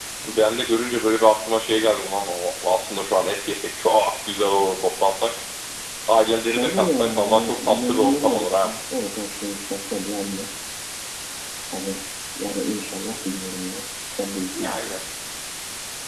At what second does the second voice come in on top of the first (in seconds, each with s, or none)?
6.5 s